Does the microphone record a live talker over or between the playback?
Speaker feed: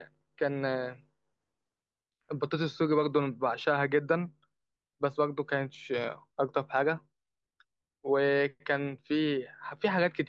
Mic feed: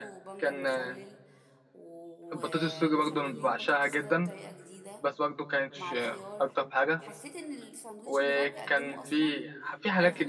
Yes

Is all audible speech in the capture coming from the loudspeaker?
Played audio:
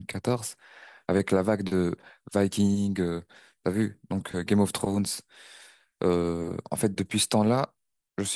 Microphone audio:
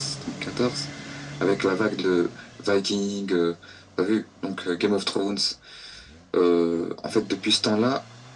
Yes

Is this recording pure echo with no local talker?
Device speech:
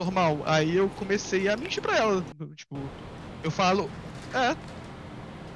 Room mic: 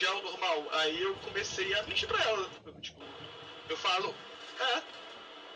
Yes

